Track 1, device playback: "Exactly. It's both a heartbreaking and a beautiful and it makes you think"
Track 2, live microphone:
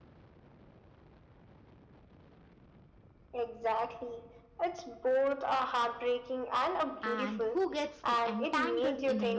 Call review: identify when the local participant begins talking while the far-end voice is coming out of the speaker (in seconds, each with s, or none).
7.0 s